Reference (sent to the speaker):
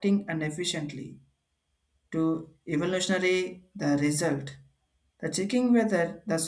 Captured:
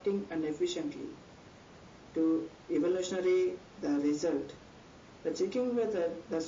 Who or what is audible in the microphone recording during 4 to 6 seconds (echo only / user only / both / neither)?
echo only